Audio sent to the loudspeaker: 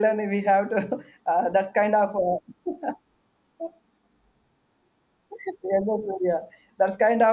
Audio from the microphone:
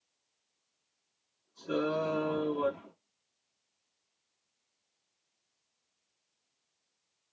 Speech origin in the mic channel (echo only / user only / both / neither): user only